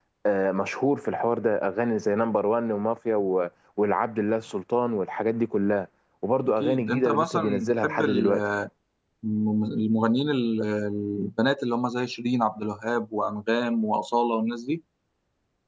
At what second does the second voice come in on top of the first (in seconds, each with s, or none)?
6.4 s